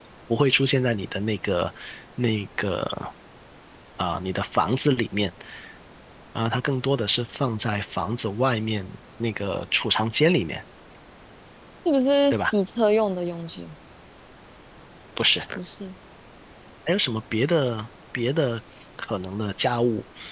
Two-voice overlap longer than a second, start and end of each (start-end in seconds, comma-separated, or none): none